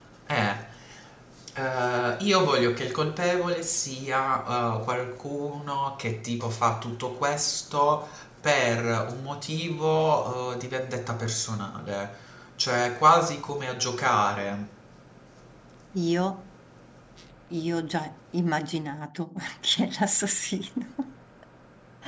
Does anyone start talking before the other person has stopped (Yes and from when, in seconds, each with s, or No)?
No